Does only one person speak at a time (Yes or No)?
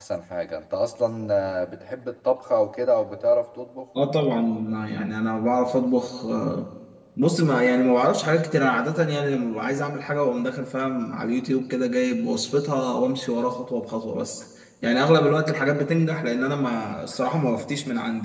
Yes